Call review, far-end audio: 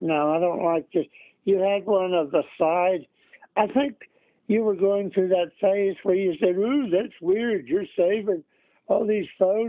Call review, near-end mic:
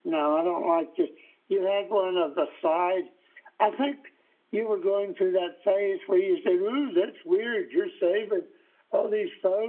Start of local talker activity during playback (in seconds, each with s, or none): none